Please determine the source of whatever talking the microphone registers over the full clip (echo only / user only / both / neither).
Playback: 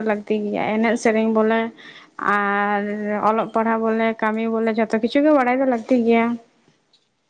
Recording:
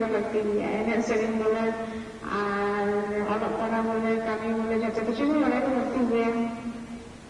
echo only